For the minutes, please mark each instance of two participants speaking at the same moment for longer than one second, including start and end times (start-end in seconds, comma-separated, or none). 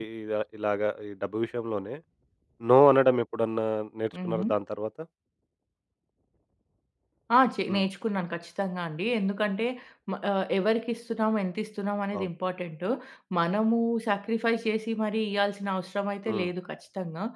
none